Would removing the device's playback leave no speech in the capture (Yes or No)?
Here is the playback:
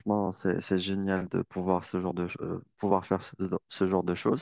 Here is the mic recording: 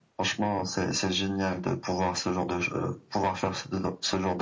Yes